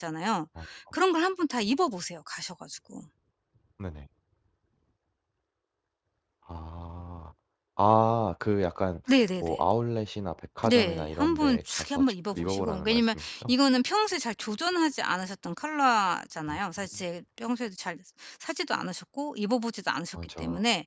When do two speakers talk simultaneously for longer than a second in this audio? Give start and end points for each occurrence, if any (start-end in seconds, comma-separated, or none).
10.7-13.5